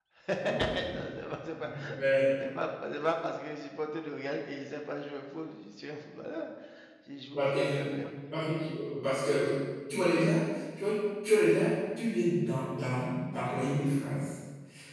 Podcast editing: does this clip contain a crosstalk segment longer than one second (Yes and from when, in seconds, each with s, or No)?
No